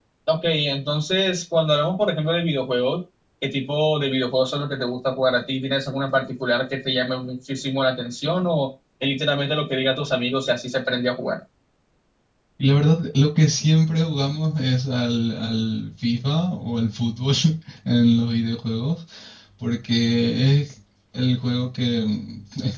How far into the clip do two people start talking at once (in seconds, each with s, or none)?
none